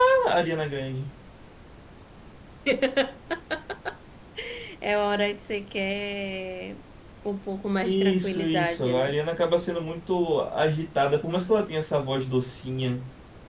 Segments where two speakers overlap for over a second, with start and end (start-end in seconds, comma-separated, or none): 7.8-9.2